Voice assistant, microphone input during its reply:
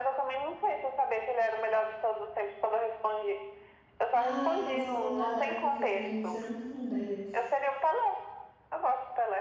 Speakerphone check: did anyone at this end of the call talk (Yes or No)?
Yes